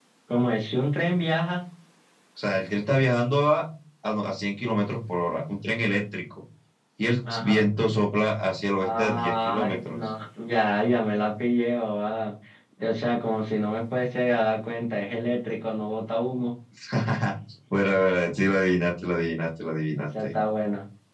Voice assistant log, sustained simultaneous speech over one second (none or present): present